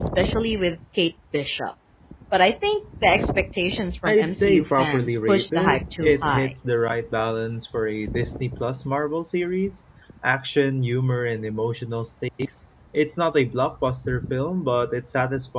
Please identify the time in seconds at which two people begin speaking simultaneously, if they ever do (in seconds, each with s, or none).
3.9 s